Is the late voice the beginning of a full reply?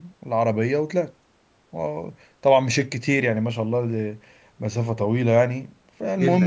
Yes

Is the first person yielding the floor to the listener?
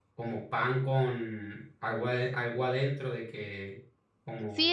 Yes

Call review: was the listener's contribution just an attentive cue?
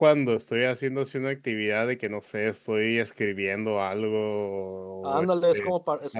No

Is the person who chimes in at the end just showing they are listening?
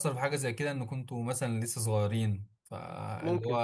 Yes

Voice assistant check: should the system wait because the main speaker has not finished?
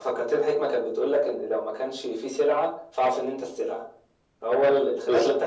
Yes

